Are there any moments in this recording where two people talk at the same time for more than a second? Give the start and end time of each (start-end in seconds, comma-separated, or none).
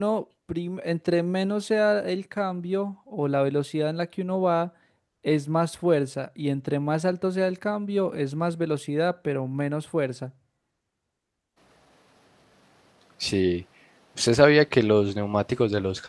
none